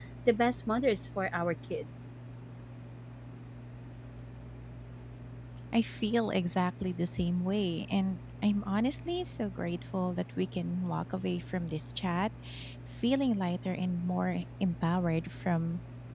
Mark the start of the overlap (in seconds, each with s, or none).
none